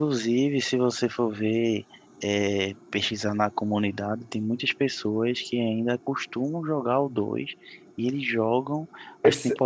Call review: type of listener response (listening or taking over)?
listening